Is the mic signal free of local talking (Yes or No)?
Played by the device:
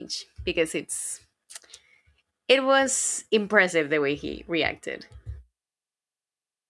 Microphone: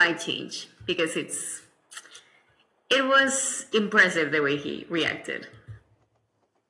Yes